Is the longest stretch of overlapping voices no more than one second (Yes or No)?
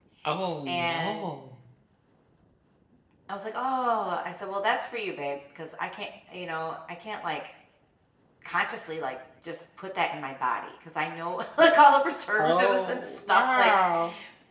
No